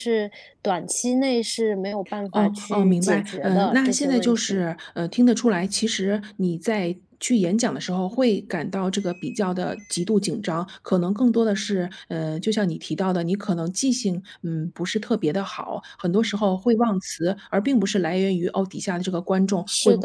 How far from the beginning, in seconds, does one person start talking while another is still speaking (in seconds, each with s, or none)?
2.3 s